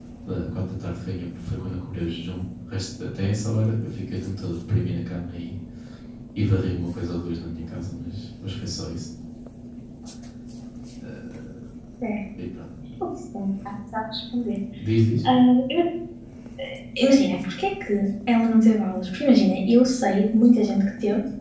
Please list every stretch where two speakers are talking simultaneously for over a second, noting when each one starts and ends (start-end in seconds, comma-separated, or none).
none